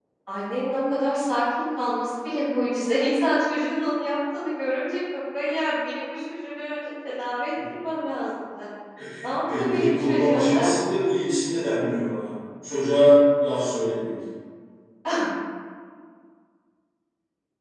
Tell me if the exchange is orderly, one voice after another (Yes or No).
No